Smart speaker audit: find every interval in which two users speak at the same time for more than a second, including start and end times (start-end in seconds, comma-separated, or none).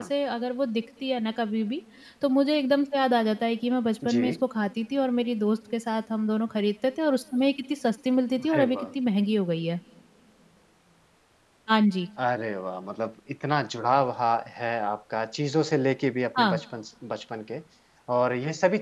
none